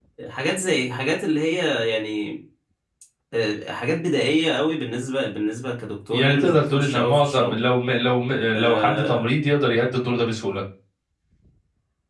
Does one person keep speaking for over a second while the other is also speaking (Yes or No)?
Yes